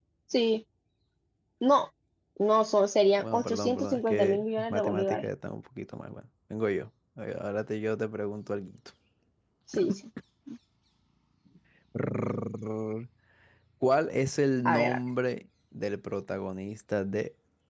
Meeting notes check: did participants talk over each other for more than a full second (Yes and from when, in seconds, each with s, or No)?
Yes, from 3.2 s